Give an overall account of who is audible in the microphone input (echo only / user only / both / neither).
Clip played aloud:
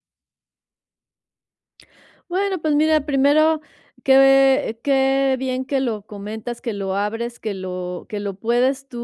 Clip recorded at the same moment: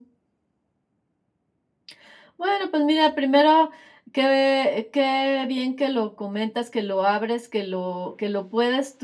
echo only